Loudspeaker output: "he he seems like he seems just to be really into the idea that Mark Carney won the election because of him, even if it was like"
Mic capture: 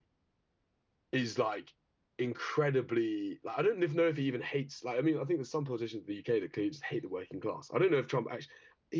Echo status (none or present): none